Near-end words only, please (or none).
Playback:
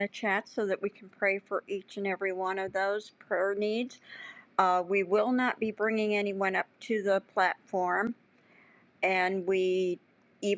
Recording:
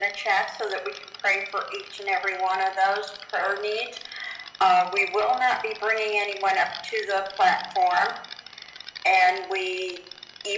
none